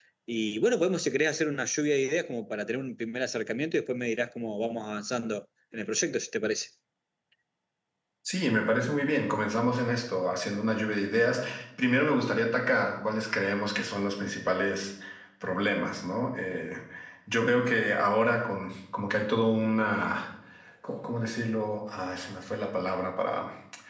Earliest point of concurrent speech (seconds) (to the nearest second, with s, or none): none